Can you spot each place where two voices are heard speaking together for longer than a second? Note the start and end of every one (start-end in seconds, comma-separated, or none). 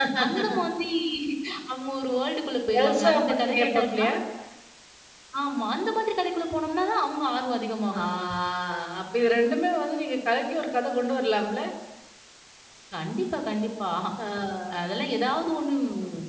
2.8-4.0